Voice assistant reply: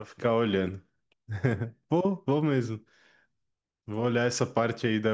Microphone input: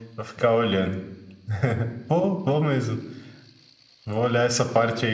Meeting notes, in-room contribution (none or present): none